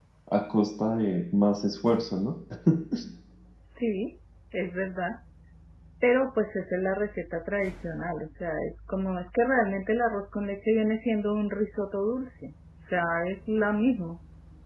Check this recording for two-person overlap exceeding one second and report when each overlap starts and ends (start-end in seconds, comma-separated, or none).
none